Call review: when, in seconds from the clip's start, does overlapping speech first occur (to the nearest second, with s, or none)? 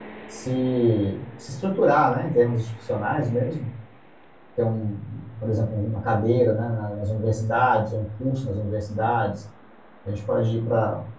none